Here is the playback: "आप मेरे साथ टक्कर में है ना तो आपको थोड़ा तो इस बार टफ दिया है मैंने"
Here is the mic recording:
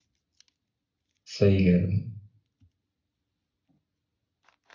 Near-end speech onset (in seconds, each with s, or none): 1.3 s